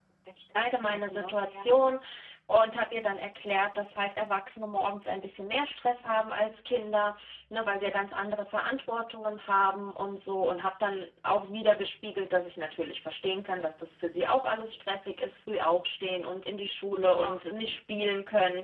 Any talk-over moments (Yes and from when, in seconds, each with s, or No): Yes, from 0.6 s